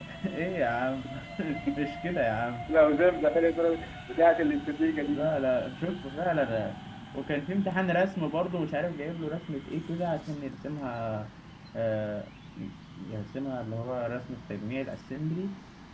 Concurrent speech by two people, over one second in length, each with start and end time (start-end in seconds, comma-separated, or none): none